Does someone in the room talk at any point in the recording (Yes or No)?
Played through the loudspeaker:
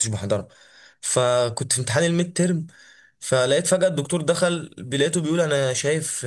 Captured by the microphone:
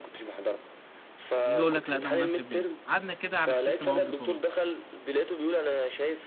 Yes